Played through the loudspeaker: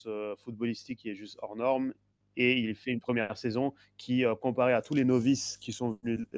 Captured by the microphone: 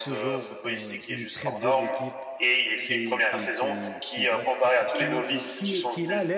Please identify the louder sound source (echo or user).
echo